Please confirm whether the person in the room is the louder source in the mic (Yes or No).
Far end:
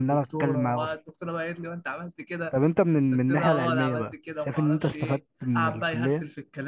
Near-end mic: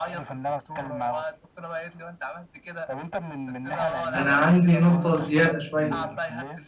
Yes